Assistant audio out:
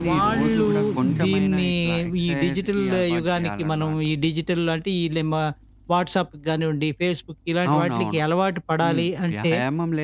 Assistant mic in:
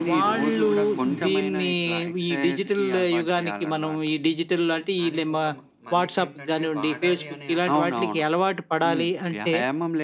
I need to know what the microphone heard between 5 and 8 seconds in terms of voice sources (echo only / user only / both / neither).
both